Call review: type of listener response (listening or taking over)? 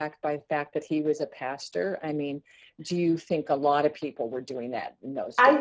taking over